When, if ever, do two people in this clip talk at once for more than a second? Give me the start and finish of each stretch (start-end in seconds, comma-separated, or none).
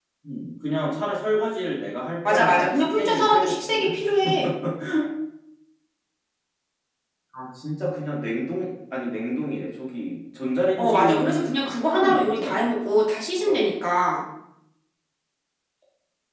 2.3-3.9, 10.8-12.6